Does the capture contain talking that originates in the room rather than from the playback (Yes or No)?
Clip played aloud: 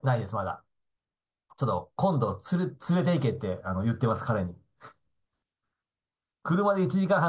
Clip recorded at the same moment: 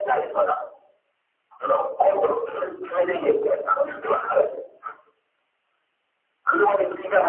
No